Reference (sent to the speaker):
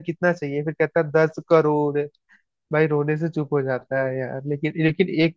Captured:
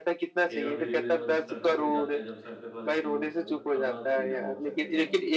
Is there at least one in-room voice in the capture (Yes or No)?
Yes